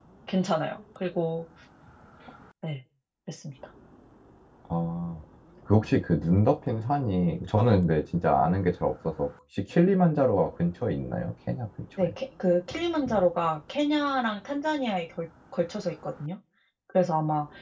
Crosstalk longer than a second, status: none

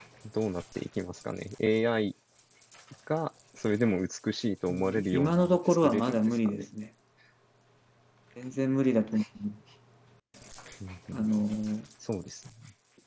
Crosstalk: present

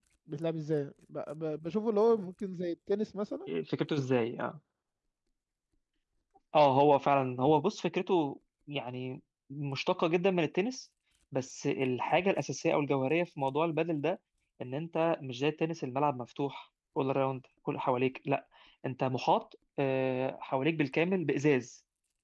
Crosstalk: none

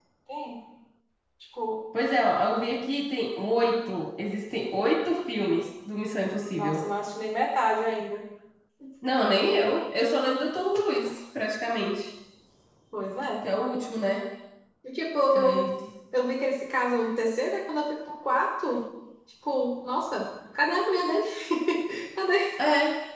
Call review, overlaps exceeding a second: none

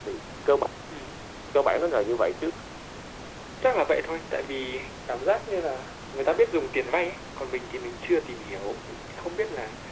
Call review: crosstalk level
none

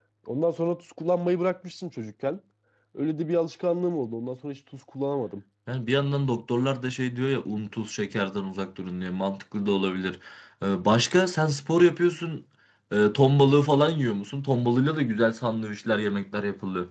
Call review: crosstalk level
none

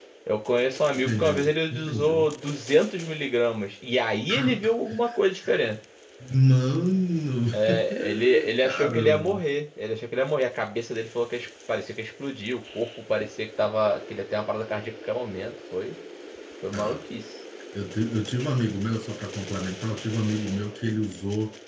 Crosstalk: present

